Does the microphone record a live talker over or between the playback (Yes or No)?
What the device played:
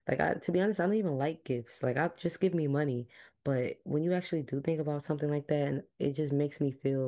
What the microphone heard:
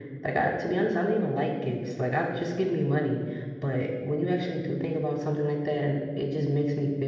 No